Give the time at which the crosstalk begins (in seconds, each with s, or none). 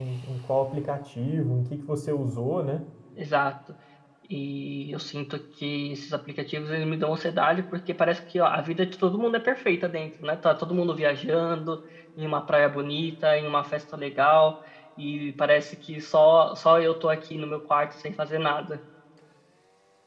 none